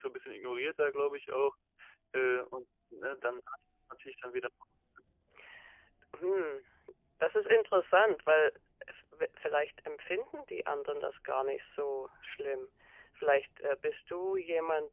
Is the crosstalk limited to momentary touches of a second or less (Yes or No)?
Yes